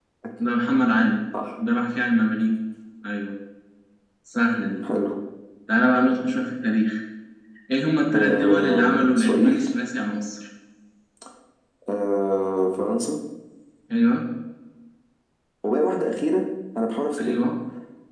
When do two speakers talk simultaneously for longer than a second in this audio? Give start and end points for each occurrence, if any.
8.2-9.7

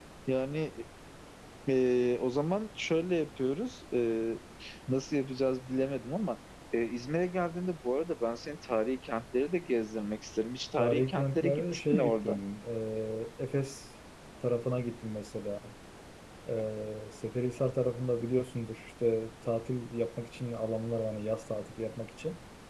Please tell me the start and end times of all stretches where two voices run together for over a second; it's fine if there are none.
10.8-12.4

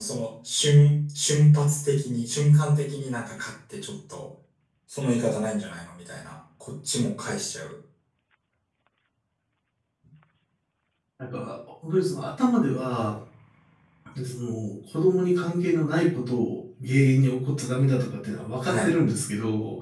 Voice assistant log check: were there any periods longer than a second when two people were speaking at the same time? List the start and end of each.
none

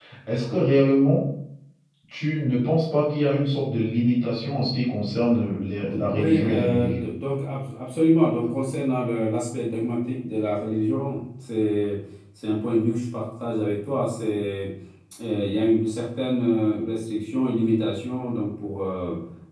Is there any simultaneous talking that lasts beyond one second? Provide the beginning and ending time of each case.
5.8-7.1

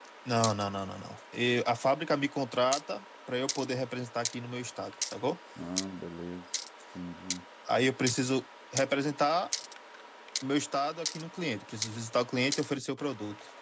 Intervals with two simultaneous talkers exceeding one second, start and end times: none

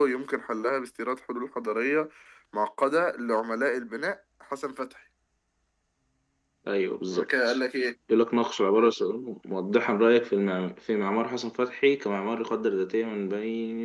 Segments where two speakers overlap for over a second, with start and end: none

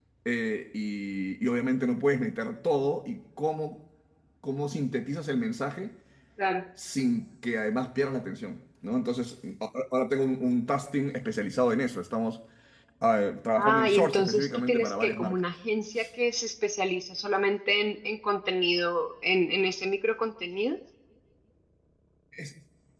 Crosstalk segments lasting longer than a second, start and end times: 13.6-15.4

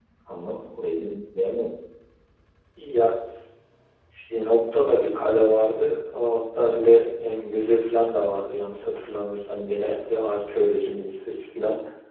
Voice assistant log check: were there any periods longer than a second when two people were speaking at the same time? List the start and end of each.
none

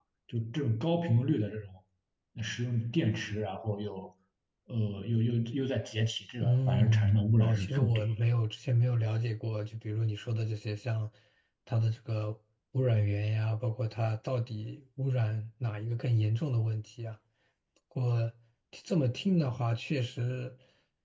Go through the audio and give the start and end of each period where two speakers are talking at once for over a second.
6.4-8.0

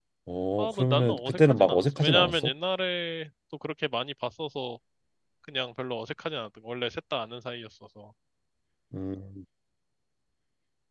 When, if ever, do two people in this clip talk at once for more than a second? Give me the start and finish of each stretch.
0.6-2.4

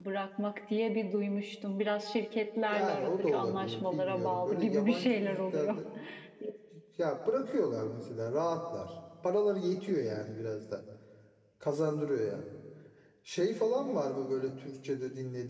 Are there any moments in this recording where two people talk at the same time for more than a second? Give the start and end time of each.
2.7-5.8

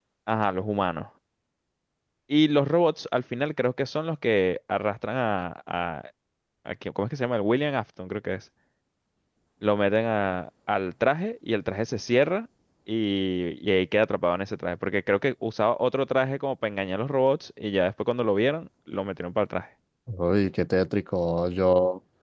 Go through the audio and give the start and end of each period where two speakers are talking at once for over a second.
none

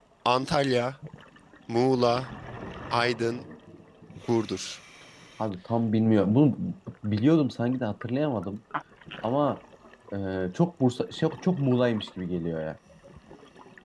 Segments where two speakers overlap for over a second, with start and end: none

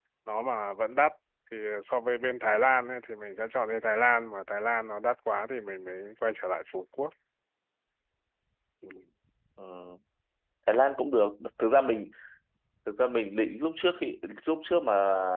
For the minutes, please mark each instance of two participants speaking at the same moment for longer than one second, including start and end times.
none

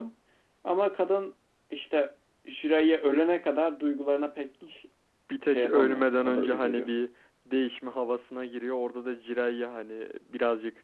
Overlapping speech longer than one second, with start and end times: 5.5-6.9

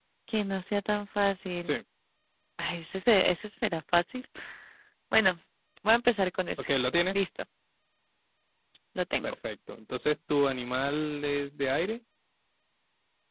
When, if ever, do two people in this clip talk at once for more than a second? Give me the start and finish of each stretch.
none

